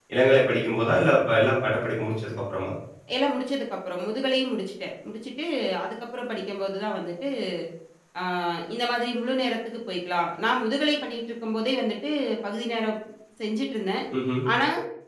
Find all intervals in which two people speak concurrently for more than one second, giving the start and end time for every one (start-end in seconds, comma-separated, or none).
none